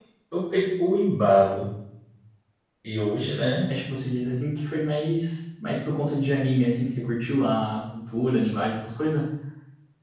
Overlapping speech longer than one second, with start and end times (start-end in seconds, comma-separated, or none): none